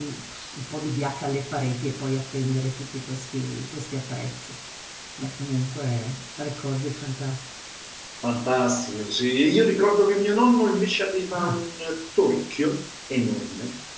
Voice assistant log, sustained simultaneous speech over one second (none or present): none